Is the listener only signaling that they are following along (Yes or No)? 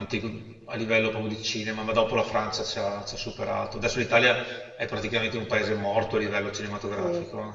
No